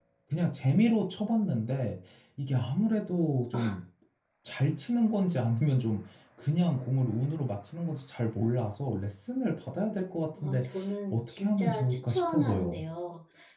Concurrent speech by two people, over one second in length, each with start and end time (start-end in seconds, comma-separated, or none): 11.1-12.8